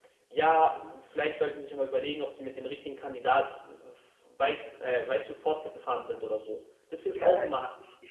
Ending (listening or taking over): taking over